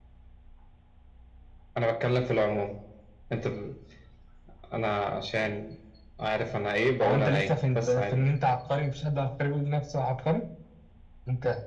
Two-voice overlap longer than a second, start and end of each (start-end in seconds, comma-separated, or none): 7.0-8.3